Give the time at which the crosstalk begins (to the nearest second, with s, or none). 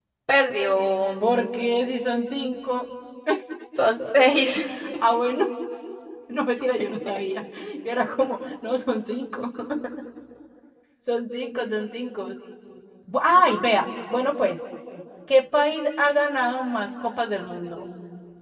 none